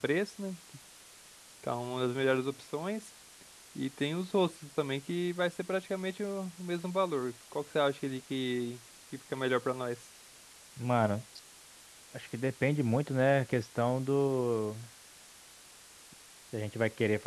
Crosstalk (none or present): none